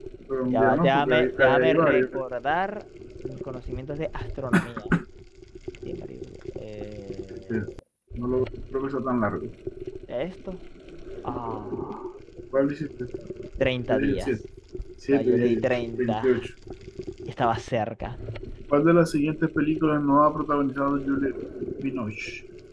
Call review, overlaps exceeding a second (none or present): present